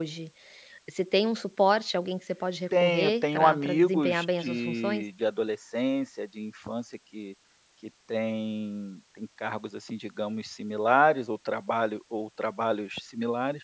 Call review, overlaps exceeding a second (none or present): present